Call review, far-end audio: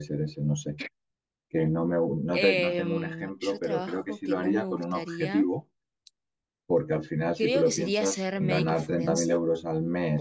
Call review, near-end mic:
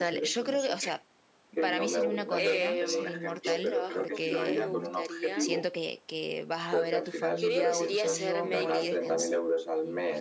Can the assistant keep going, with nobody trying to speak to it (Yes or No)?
No